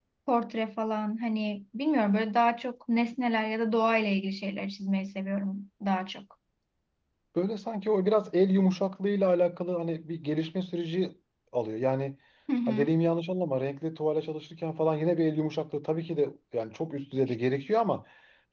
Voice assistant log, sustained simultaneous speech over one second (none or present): none